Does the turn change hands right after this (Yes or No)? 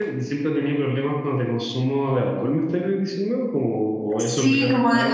Yes